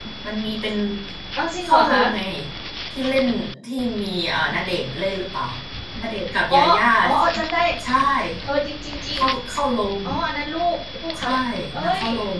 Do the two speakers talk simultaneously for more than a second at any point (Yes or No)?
No